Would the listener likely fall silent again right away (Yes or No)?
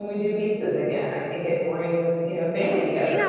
No